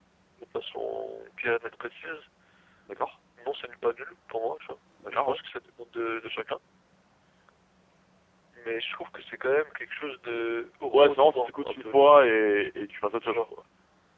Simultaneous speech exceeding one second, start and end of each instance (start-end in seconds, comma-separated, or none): 10.9-12.2